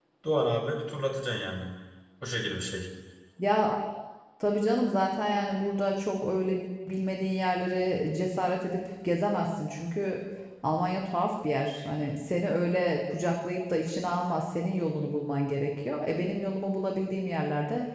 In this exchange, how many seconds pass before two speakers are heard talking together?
none

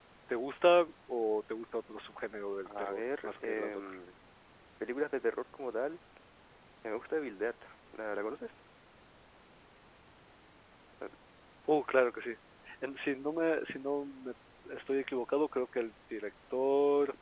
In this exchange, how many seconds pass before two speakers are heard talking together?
2.6 s

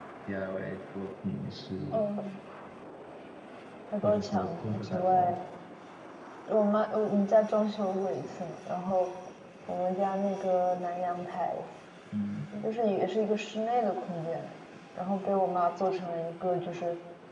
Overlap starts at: 4.0 s

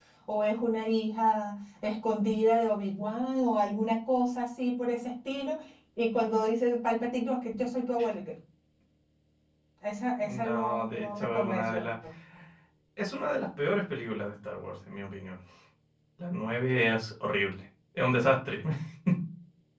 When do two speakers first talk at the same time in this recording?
10.2 s

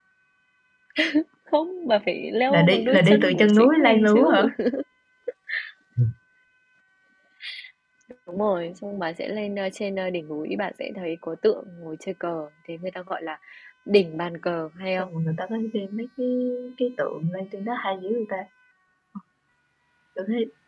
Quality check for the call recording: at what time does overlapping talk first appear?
2.5 s

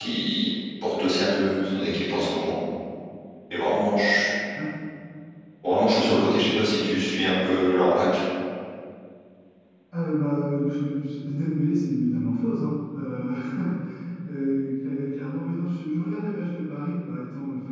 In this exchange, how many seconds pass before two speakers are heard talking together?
none

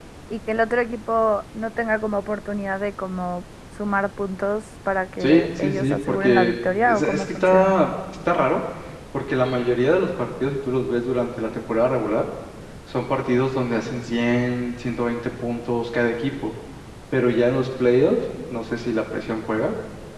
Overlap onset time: 5.2 s

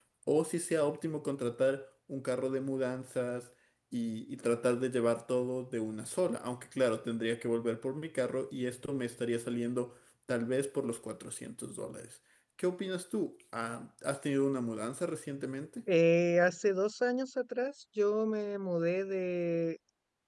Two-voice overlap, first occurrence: none

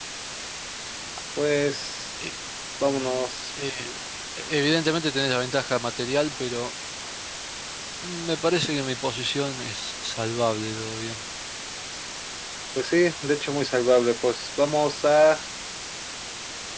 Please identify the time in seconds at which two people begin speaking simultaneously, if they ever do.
none

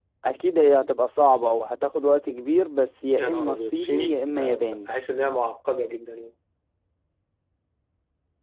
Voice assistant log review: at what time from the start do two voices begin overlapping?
3.2 s

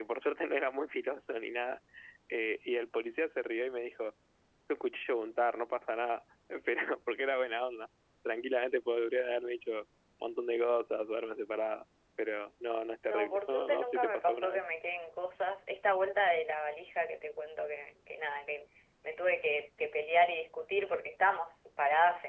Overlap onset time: 13.1 s

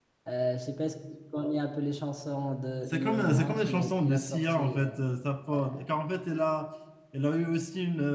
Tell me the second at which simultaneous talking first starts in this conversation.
2.9 s

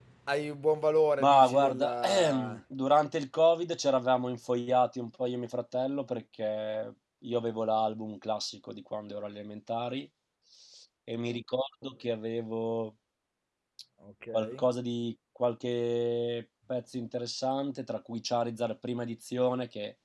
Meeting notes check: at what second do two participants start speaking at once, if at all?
1.2 s

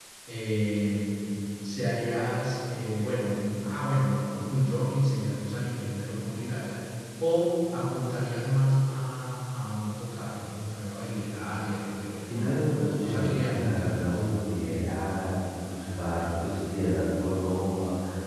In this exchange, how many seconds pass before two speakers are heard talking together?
12.3 s

